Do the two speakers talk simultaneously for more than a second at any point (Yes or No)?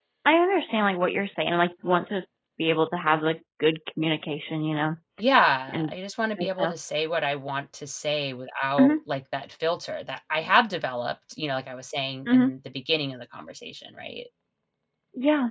No